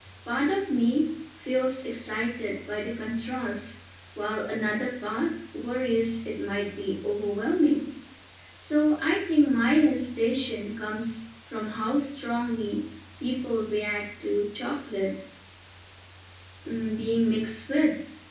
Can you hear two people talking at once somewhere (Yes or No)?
No